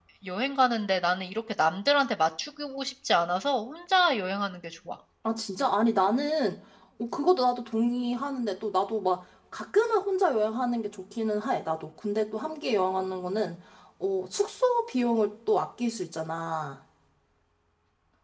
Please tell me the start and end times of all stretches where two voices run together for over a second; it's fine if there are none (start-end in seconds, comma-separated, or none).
none